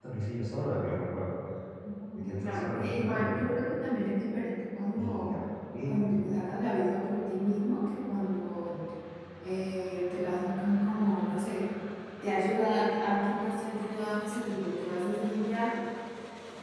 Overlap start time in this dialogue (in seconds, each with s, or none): 2.2 s